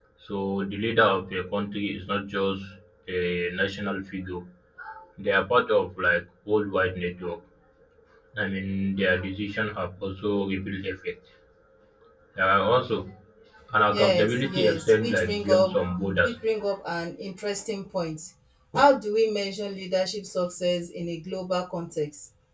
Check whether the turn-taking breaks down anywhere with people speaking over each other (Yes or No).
Yes